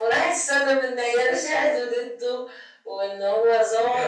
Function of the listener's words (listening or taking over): listening